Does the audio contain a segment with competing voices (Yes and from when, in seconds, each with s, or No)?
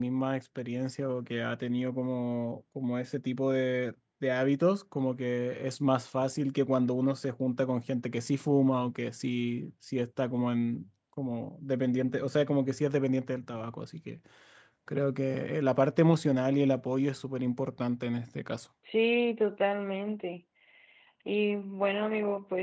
No